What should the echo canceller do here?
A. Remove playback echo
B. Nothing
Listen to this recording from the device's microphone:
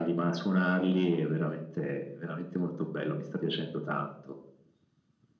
A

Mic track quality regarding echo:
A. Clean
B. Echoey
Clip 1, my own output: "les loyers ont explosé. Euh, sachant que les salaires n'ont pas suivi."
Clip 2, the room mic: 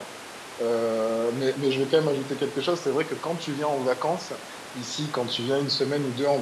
A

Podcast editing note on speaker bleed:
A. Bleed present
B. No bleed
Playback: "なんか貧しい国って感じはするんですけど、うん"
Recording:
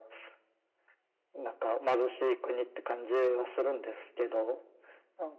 A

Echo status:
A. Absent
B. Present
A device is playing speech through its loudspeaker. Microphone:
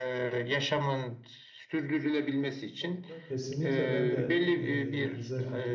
B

